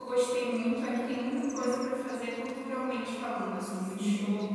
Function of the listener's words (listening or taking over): taking over